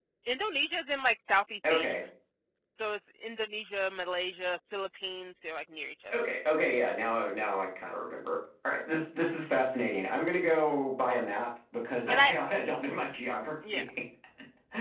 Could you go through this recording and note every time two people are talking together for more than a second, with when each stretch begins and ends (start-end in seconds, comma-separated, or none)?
none